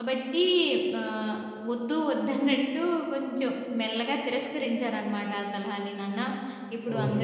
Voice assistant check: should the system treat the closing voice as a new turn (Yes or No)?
No